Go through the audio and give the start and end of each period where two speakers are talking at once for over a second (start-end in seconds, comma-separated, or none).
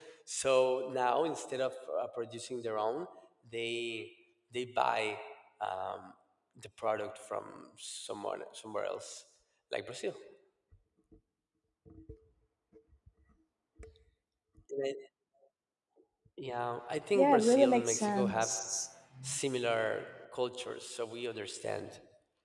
17.1-18.6